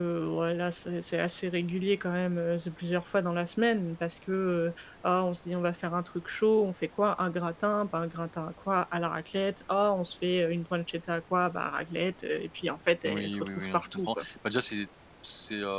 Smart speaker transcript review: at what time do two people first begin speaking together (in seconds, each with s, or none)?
13.0 s